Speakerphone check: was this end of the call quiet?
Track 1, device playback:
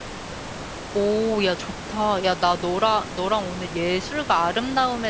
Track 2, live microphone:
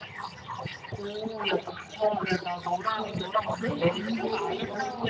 No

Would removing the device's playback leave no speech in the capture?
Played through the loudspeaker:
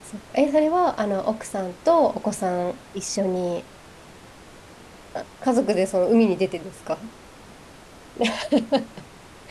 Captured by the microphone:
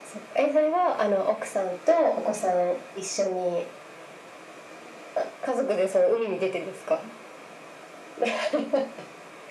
Yes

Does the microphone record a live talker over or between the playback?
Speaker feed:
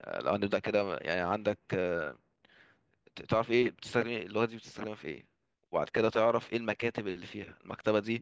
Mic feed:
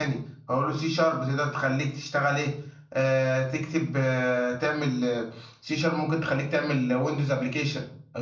Yes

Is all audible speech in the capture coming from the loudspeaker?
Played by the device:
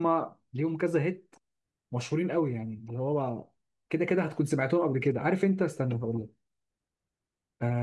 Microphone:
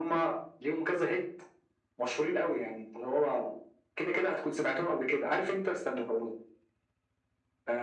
Yes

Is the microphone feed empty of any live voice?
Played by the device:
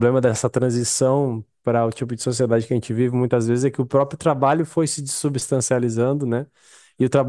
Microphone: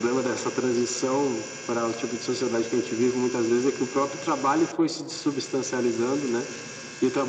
Yes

